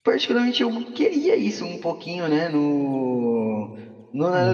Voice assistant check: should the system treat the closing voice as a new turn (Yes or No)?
No